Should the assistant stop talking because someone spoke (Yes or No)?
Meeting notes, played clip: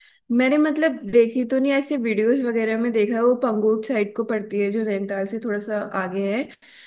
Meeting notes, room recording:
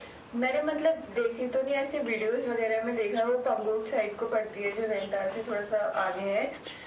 No